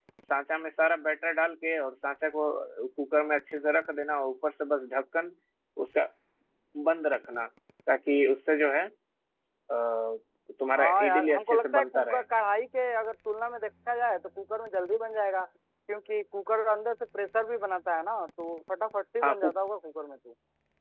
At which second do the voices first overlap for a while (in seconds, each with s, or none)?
10.8 s